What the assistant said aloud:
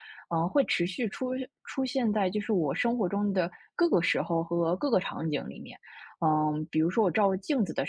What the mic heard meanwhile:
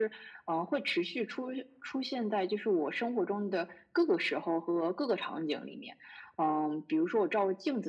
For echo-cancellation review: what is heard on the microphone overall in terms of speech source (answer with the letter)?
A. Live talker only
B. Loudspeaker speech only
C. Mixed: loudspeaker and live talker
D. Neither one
B